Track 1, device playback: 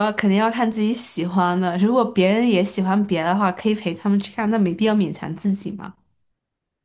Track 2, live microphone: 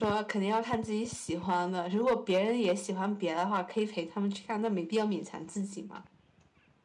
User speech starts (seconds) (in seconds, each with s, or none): none